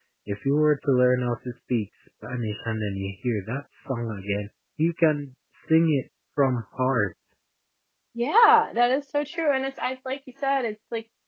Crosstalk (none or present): none